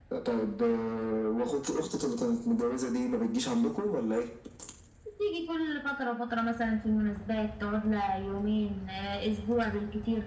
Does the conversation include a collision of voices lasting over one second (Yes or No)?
No